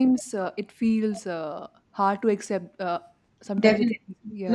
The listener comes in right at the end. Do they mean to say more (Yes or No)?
Yes